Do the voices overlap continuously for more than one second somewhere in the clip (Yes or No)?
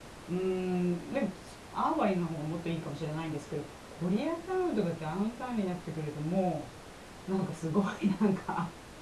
No